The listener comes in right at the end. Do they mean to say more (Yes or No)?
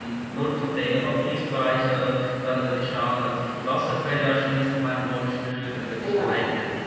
No